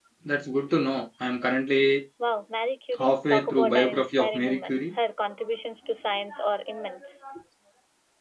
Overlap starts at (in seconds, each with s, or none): 3.0 s